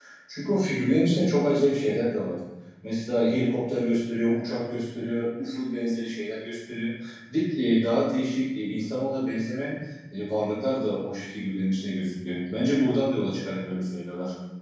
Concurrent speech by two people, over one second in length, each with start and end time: none

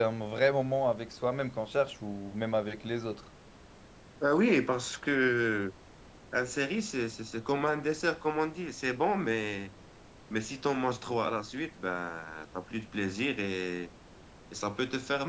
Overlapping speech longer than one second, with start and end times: none

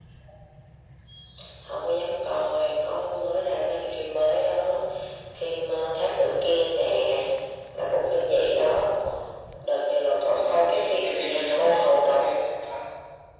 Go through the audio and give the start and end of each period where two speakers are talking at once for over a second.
10.2-12.2

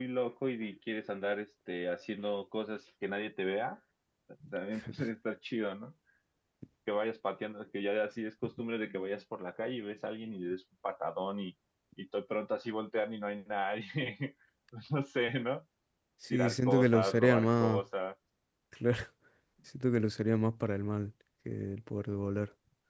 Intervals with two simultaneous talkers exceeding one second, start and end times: 16.3-17.8

